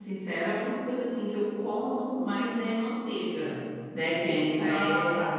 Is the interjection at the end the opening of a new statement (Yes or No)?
No